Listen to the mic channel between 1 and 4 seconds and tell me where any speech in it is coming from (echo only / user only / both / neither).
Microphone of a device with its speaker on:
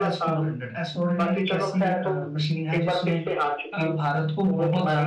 both